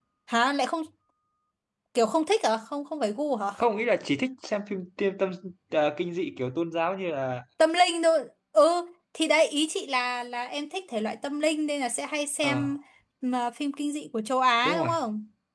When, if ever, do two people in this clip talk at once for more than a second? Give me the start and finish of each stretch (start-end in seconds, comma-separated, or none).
none